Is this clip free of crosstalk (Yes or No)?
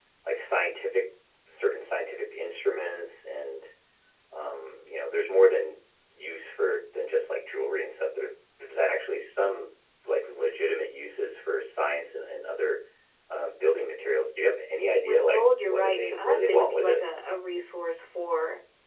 No